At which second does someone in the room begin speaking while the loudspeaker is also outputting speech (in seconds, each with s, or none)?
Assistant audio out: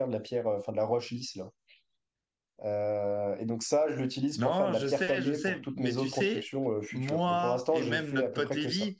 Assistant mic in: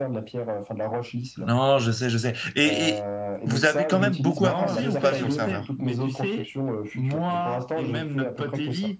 1.4 s